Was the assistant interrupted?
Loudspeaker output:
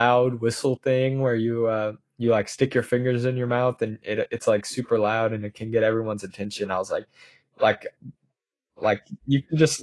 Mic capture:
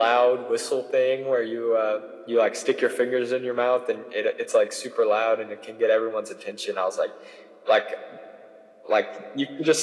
No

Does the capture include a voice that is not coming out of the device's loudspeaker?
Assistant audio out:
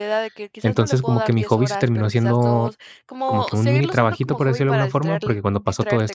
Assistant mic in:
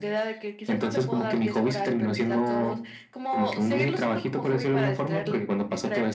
No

